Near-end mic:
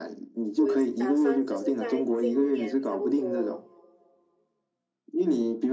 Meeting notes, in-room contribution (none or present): present